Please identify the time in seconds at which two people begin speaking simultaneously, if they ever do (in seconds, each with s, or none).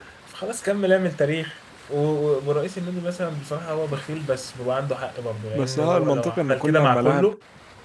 5.5 s